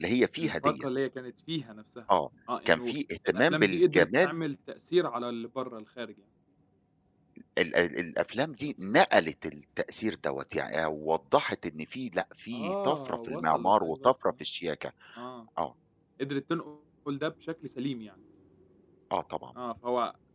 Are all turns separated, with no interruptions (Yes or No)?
No